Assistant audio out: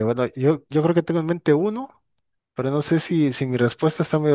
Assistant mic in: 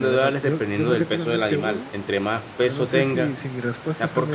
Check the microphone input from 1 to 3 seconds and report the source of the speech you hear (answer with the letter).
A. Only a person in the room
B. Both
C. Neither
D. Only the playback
B